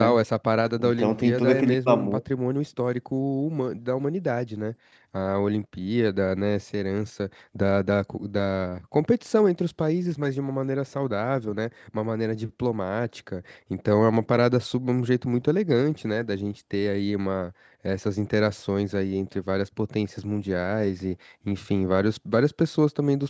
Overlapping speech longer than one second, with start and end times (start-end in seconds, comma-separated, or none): 0.8-2.2